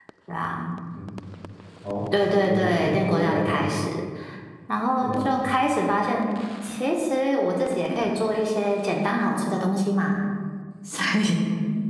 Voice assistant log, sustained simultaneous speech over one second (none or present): present